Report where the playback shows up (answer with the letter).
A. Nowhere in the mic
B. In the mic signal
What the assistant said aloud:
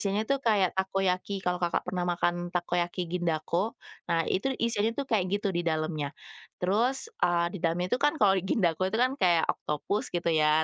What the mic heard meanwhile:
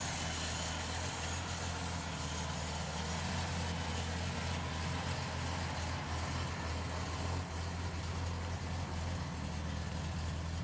A